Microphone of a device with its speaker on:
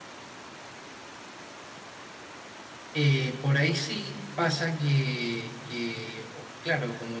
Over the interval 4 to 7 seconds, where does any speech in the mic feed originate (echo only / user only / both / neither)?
user only